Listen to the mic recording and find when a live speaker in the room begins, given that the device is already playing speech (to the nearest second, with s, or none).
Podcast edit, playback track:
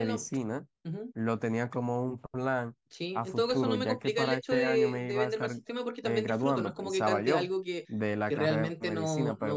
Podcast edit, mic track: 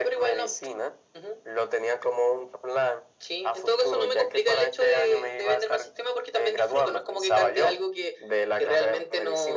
none